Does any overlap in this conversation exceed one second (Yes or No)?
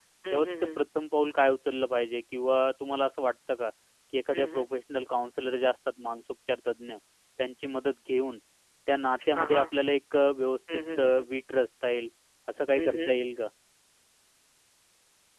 No